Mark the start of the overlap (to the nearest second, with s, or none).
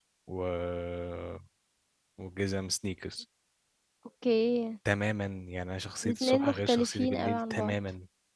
6 s